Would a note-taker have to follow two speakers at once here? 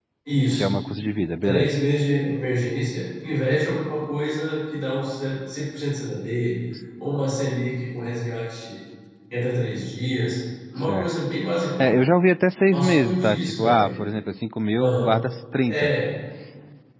Yes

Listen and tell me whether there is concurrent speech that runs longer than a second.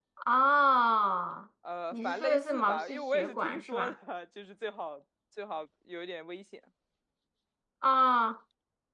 Yes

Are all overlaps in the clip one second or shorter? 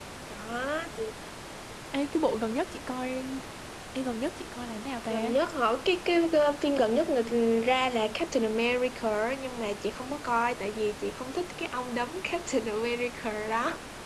Yes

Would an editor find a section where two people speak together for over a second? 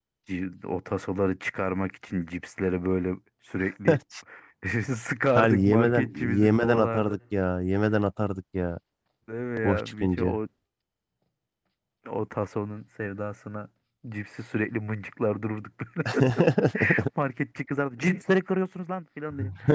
Yes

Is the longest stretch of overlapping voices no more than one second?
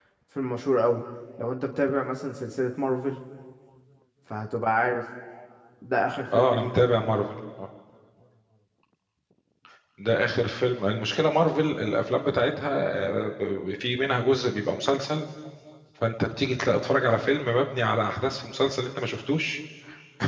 Yes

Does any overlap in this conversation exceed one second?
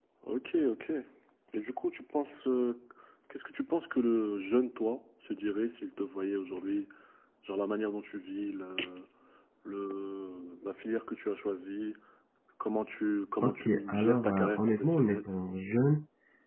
Yes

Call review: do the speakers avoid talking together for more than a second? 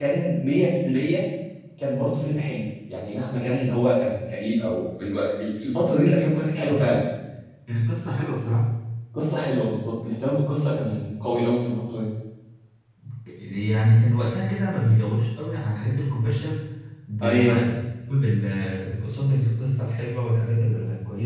Yes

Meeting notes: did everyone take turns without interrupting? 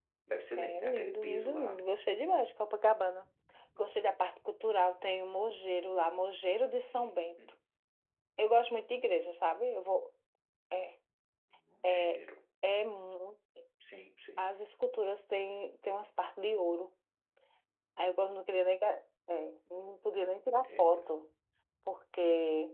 No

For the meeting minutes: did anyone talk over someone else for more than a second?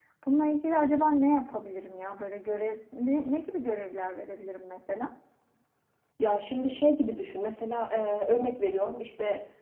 No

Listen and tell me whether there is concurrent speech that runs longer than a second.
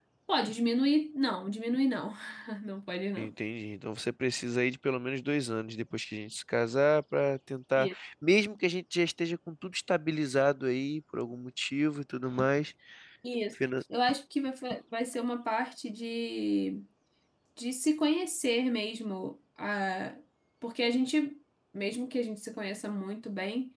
No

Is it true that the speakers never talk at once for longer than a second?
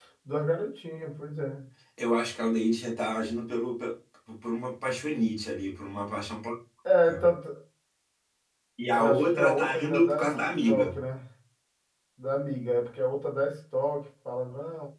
No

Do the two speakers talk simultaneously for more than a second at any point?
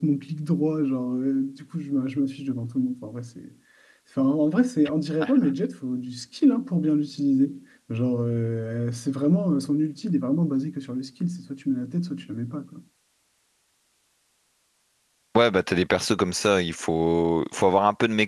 No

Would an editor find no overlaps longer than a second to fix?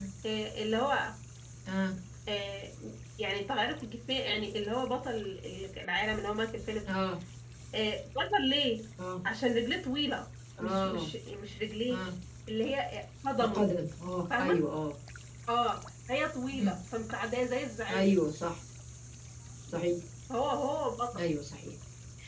Yes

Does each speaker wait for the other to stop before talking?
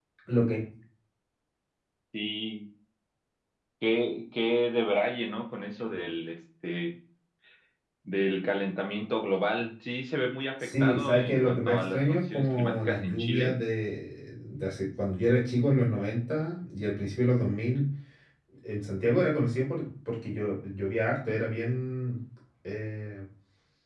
No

